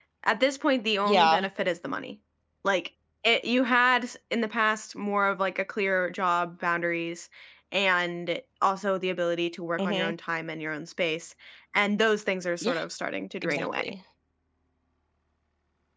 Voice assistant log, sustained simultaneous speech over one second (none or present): none